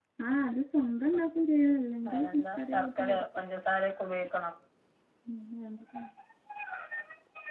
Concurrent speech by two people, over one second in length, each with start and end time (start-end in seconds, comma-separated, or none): 2.1-3.4